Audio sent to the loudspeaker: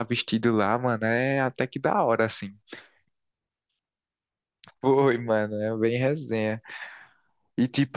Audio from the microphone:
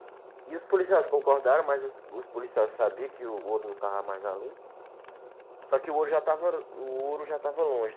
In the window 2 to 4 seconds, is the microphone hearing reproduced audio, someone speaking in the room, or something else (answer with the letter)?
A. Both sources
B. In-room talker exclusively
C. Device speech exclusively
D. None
B